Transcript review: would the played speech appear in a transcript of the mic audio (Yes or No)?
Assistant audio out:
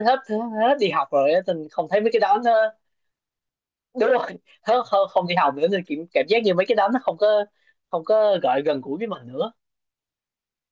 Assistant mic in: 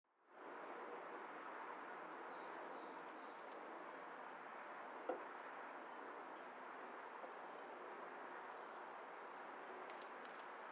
No